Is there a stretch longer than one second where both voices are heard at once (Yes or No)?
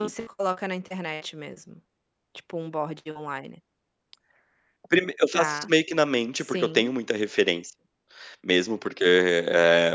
No